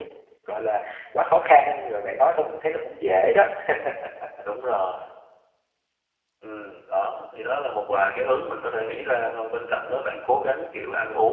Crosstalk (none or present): none